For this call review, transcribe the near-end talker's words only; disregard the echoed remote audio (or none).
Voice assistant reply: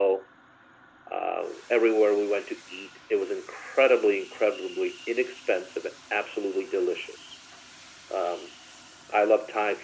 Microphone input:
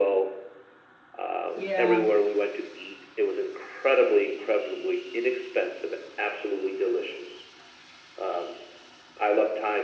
yeah,